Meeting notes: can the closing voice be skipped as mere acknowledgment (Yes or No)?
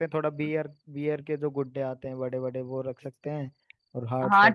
No